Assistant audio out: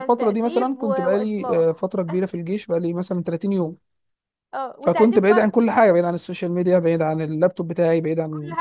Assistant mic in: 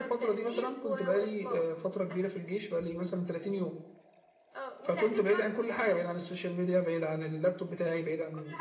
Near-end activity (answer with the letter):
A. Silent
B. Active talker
A